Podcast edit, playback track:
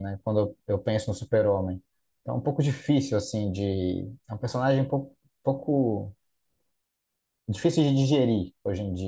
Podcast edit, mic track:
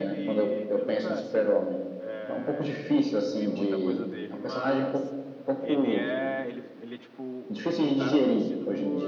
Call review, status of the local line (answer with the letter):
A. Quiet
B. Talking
B